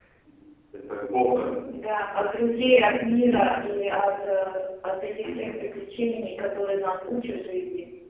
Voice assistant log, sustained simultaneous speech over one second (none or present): none